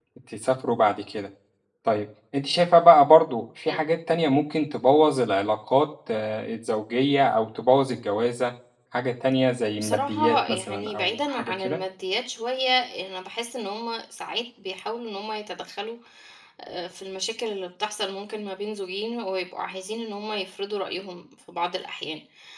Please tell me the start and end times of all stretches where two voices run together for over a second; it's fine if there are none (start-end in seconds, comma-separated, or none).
9.8-11.8